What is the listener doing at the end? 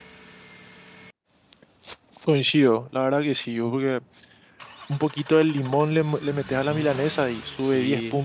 taking over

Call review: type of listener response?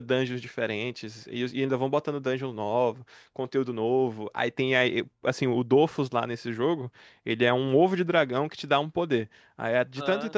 listening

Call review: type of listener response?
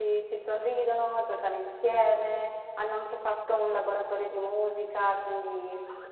taking over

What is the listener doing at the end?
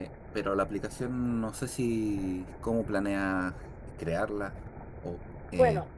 taking over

